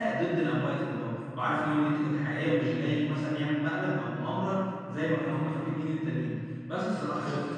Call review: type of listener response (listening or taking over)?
listening